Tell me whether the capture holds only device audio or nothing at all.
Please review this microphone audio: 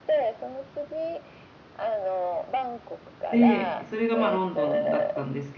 No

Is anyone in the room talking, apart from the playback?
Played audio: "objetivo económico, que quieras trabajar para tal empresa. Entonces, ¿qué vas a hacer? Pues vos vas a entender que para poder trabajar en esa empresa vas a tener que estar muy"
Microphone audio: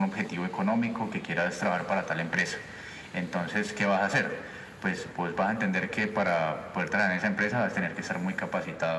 No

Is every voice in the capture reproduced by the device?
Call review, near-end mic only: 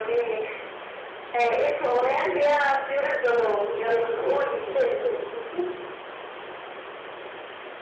Yes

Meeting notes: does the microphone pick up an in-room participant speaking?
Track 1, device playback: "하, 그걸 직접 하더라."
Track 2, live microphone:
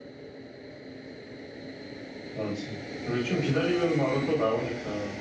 Yes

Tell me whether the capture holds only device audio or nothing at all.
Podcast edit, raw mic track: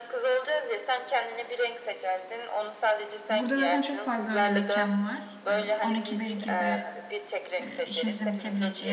No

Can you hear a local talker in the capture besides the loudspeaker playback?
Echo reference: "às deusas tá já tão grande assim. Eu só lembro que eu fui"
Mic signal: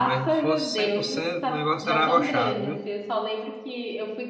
Yes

